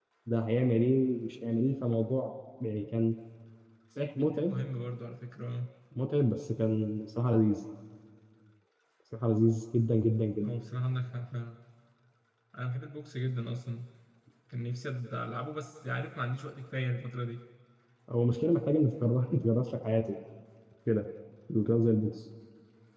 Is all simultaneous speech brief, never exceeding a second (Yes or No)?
Yes